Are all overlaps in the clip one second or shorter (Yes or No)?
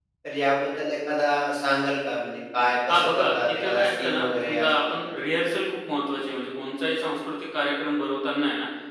No